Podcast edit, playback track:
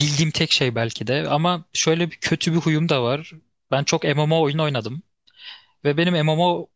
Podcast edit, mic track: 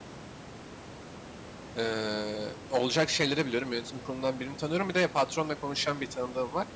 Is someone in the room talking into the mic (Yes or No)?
Yes